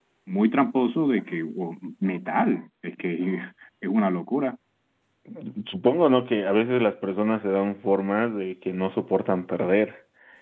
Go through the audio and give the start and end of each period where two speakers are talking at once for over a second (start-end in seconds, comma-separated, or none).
none